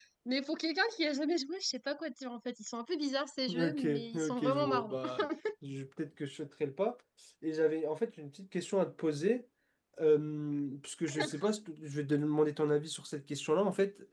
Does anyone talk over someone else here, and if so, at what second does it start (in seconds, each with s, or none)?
3.5 s